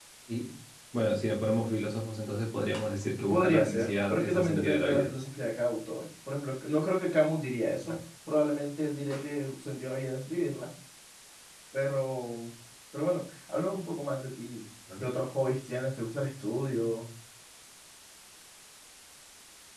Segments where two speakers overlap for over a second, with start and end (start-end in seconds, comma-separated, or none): 3.3-5.1